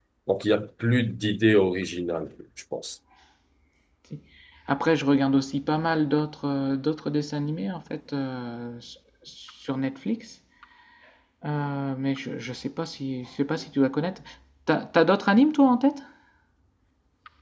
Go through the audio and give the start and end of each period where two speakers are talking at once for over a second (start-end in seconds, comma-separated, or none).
none